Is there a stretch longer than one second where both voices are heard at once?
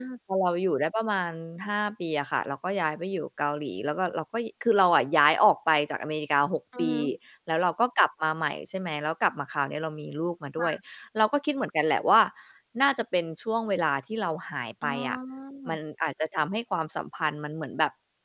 No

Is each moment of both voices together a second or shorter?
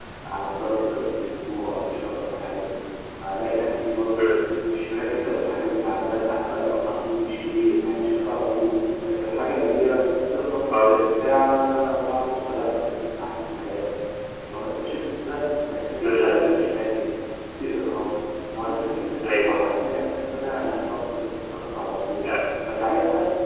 Yes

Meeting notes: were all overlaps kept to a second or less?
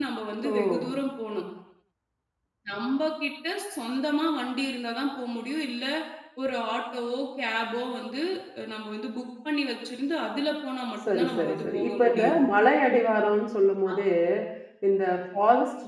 No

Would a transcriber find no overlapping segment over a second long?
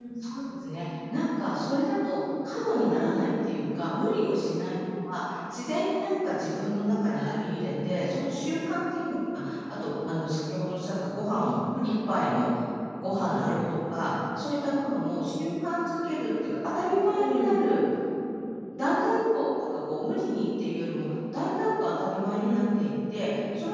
Yes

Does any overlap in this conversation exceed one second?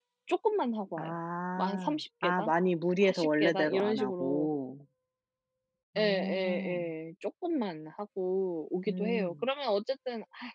Yes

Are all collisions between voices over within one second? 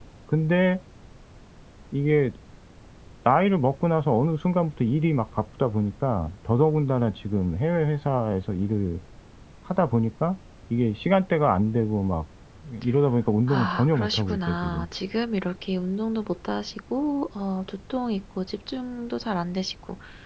No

